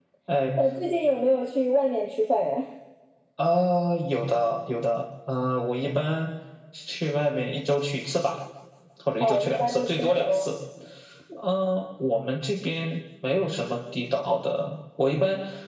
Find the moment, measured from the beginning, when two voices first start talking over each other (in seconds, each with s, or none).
9.2 s